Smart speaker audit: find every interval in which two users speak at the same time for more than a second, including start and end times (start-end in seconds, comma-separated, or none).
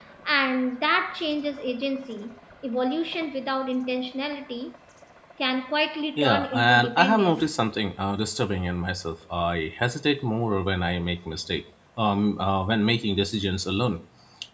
6.2-7.5